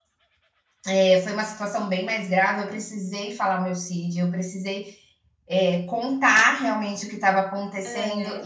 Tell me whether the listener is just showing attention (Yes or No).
Yes